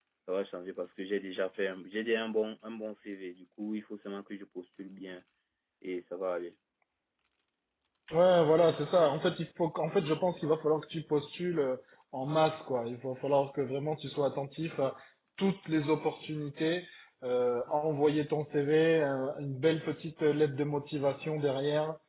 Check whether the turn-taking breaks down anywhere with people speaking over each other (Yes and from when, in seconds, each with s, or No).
No